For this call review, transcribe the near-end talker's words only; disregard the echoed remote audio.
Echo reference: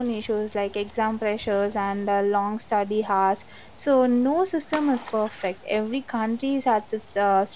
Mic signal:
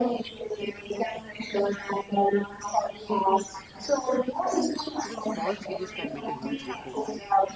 Even small changes can make a huge difference,

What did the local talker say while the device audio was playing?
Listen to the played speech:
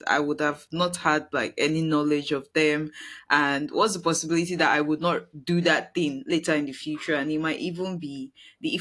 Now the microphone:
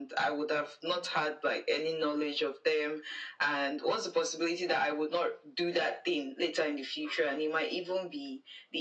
none

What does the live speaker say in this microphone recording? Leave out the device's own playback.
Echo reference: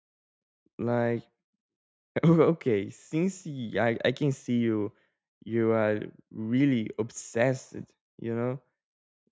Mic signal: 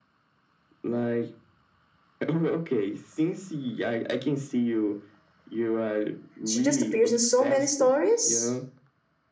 she just appears in so many stories

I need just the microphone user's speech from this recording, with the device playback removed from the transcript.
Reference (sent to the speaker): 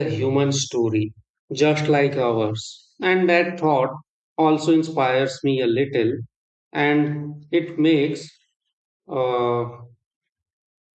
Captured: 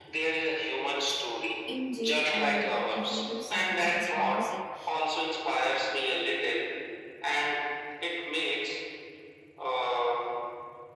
indie or the alternative side of the western music

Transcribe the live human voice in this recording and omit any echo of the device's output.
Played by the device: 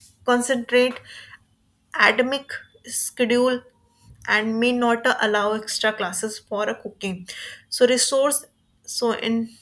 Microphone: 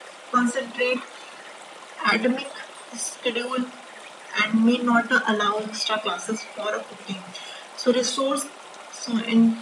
none

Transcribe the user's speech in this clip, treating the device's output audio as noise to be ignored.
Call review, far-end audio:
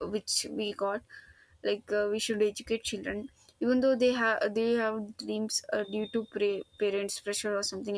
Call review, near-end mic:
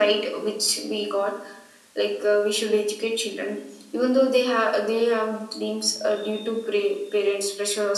none

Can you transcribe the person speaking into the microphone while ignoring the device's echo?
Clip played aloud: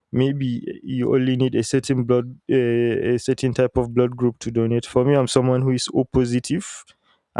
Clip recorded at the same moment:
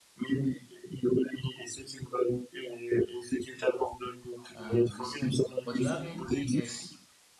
uh, risky. But you having AS

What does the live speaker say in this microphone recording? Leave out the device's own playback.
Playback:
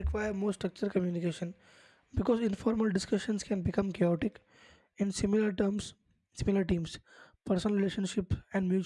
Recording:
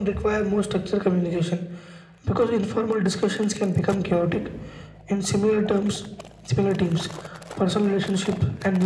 none

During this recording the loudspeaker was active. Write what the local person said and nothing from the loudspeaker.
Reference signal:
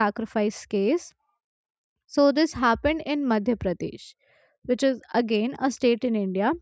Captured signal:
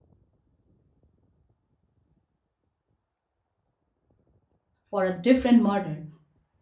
for a different murder

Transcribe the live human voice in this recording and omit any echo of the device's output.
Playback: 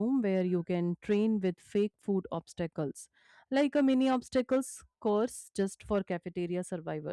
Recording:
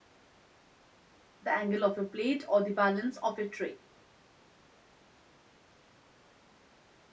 the angle of your plate, or the balance of your tray.

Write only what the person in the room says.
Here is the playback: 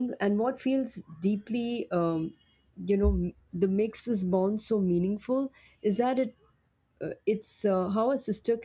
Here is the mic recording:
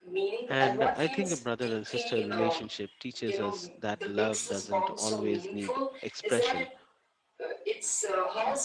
And I think a brother and sister relationship teaches us that love doesn't always need expression

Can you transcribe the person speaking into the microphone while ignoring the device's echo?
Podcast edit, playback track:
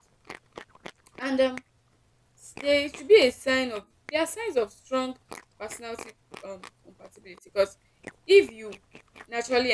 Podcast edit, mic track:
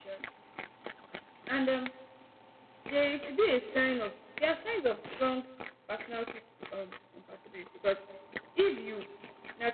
none

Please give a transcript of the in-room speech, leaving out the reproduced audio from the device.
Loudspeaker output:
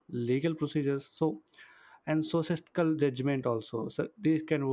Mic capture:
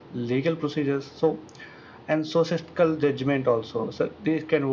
none

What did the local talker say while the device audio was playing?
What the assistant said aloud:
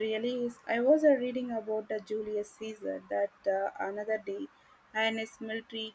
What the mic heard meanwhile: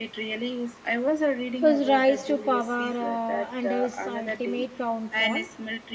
His rise to power uh, and his ultimate downfall

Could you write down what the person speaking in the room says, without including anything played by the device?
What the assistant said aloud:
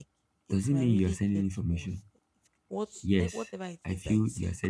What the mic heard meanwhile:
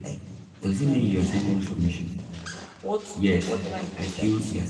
none

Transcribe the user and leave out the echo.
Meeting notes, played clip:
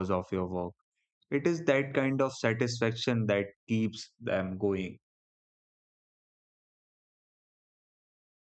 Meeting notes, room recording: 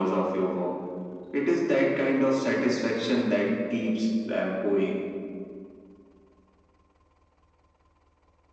none

